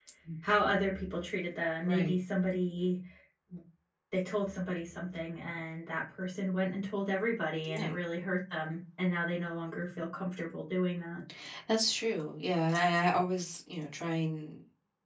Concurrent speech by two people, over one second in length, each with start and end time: none

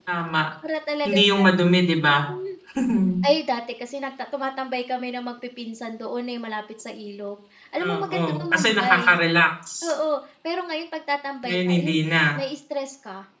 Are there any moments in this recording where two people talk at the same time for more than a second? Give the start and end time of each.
7.8-9.0

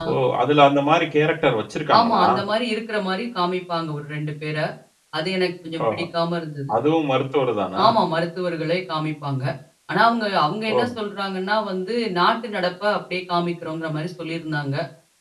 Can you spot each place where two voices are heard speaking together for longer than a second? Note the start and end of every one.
none

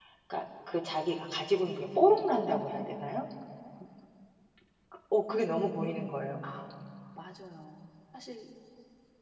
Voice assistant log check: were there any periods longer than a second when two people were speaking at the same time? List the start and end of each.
none

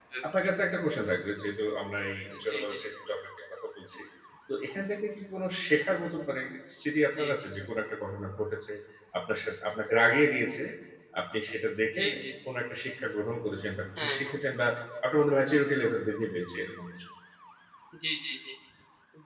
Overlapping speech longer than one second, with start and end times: none

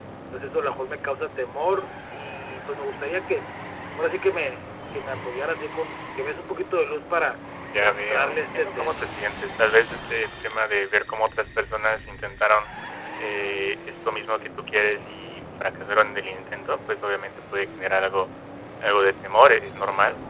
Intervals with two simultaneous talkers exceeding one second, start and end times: 7.8-9.0

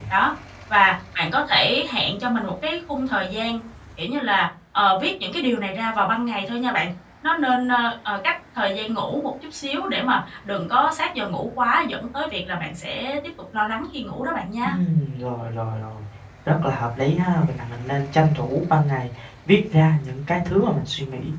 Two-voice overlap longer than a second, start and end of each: none

